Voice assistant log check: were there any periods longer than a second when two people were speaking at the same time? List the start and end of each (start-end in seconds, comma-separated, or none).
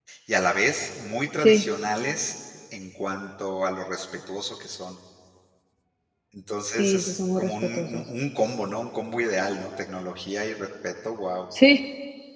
6.7-8.1